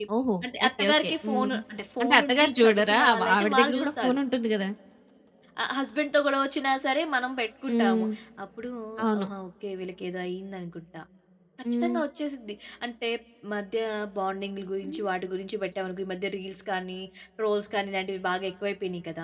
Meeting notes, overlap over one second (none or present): present